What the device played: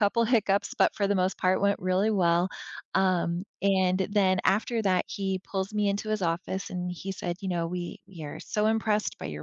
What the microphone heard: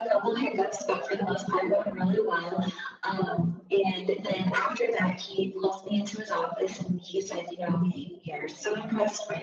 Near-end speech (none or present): none